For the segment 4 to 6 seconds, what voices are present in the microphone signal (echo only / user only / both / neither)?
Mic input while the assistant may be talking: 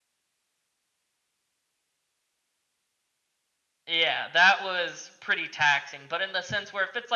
user only